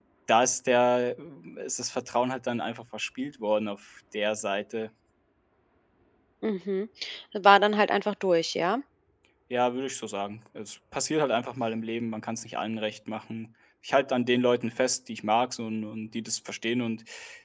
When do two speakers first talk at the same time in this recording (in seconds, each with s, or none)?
none